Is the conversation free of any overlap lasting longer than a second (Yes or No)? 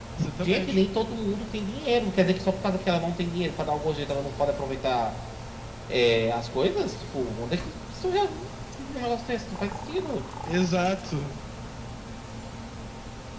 Yes